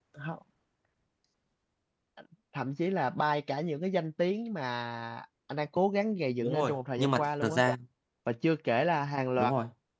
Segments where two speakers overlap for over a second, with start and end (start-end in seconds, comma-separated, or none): 6.4-7.6